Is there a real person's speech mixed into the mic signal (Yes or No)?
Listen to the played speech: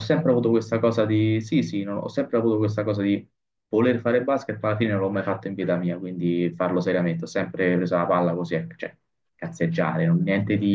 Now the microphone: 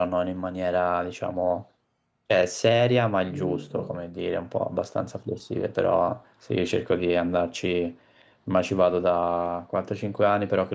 Yes